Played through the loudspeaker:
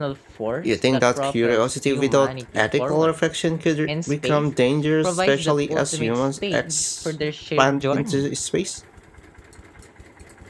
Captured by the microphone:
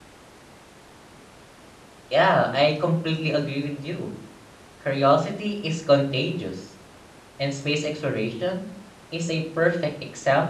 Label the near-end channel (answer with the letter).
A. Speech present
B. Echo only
A